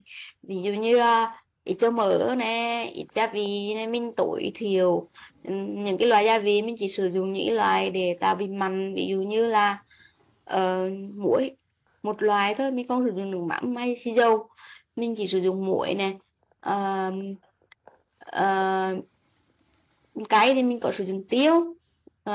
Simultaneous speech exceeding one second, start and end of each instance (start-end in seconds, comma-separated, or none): none